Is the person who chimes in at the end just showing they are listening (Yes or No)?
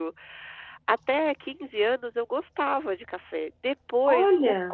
Yes